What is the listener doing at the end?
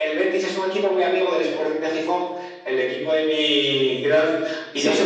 listening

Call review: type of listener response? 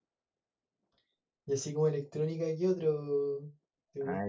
taking over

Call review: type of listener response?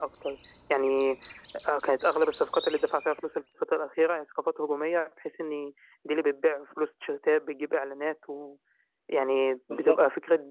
listening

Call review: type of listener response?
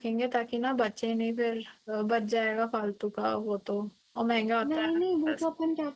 taking over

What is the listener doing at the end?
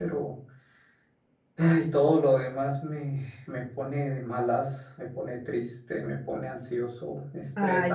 taking over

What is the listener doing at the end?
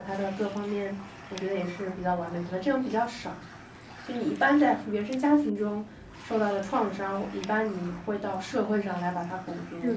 taking over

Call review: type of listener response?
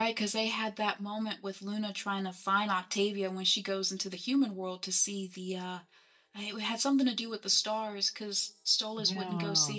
listening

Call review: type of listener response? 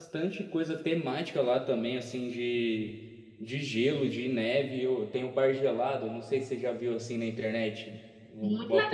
taking over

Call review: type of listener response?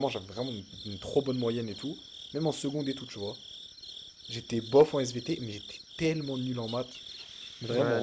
taking over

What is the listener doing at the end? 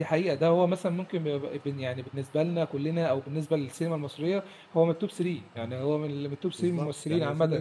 taking over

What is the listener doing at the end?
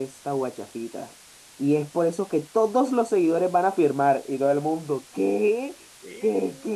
listening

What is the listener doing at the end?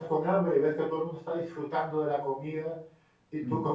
listening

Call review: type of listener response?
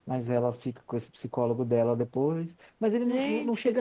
listening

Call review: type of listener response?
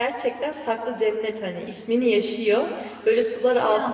listening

